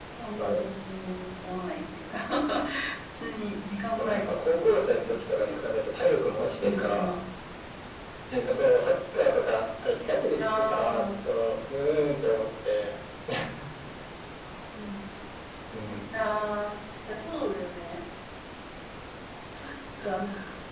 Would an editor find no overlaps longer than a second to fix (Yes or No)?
No